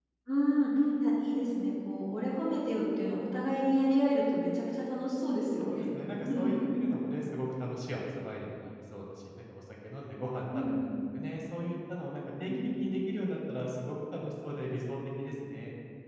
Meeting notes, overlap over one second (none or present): none